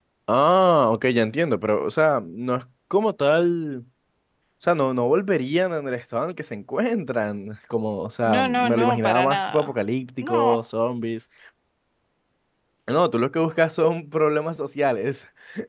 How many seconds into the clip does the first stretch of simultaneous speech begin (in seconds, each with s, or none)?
8.2 s